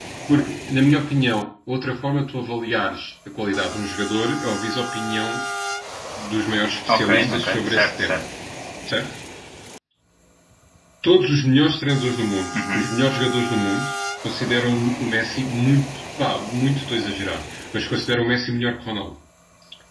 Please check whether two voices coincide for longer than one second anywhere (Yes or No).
Yes